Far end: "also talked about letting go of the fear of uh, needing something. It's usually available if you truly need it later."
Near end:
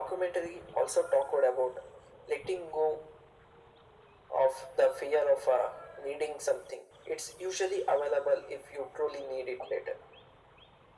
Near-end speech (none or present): none